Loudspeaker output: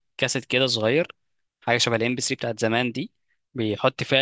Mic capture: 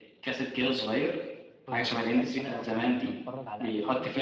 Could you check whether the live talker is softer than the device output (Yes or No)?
Yes